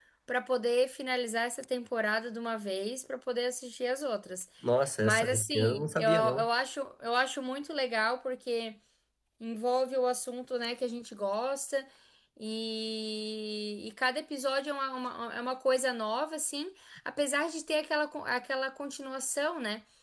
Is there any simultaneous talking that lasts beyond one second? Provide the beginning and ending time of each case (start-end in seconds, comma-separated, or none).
5.0-6.5